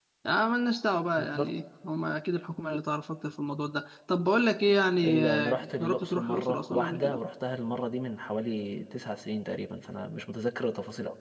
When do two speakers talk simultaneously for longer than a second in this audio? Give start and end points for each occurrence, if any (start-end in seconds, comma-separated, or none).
5.0-7.2